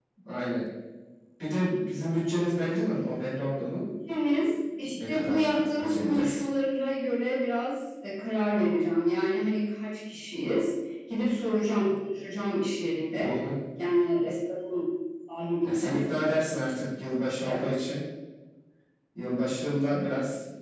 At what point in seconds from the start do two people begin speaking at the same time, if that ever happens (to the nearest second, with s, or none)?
5 s